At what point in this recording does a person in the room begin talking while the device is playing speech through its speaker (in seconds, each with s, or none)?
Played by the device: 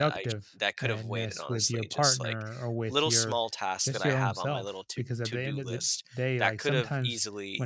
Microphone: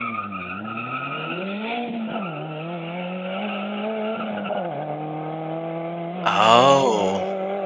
6.2 s